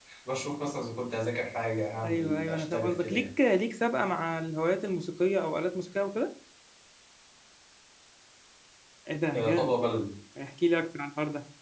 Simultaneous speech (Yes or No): Yes